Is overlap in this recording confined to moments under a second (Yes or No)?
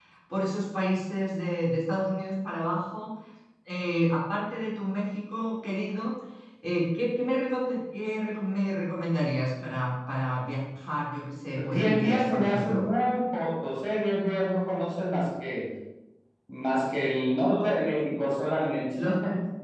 No